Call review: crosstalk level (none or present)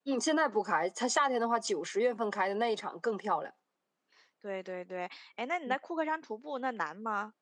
none